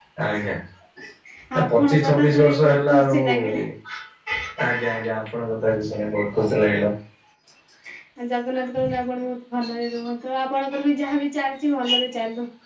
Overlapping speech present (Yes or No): Yes